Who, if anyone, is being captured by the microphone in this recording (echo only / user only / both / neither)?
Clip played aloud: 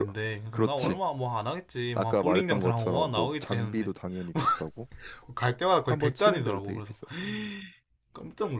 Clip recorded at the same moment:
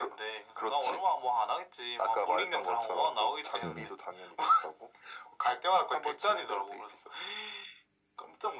both